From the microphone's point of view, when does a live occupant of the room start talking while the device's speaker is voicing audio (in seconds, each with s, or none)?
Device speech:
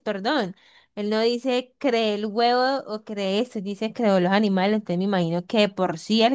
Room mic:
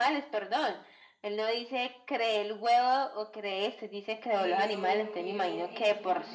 4.3 s